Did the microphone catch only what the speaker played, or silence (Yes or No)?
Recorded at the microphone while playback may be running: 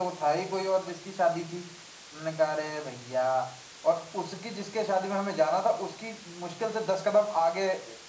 Yes